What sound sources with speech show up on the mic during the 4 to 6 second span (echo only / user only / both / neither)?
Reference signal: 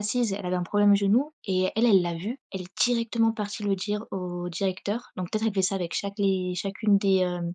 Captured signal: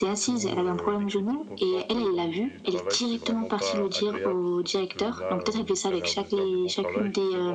both